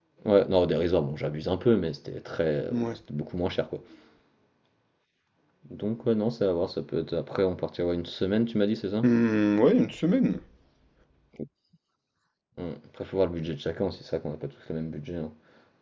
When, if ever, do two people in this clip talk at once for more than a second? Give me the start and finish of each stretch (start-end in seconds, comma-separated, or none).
none